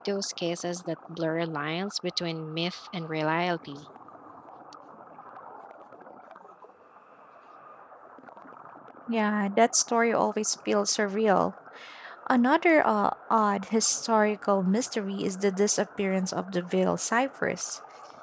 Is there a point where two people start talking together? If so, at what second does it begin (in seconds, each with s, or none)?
none